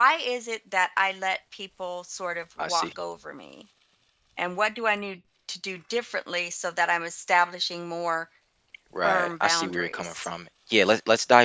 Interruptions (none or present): present